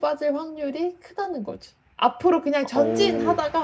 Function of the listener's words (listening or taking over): listening